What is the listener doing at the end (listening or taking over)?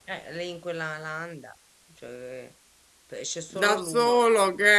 taking over